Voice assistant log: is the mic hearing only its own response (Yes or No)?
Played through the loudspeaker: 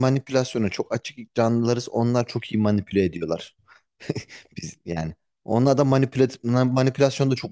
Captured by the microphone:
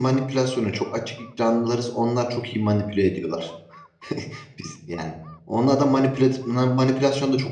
Yes